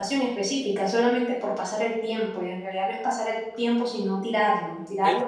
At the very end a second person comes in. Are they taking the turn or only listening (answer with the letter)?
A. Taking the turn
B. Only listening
A